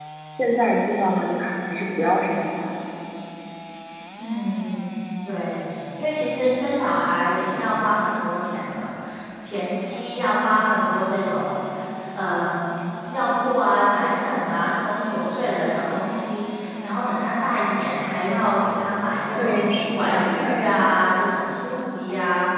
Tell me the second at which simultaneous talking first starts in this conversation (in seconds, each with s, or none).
19.4 s